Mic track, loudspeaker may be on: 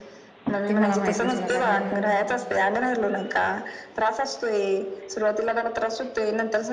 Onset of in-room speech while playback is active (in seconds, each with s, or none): 0.7 s